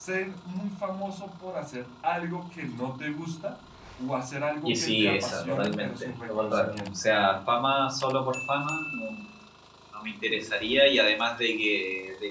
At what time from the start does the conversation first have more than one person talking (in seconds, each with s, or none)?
4.7 s